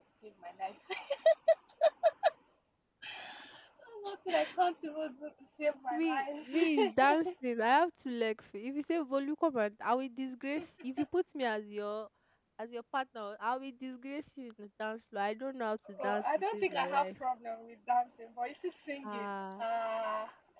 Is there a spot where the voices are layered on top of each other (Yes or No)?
Yes